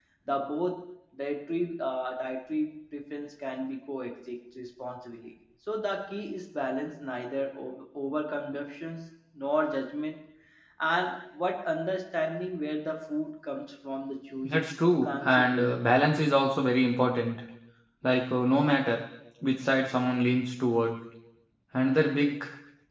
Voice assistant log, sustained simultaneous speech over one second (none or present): present